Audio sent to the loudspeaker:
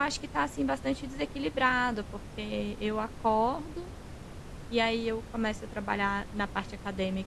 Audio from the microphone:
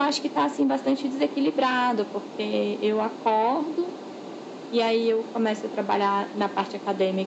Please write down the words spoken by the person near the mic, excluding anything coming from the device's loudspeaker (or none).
none